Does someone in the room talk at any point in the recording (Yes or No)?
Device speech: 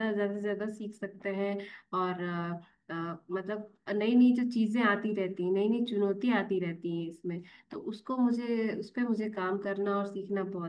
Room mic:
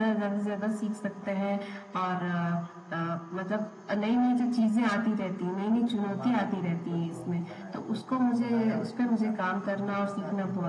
Yes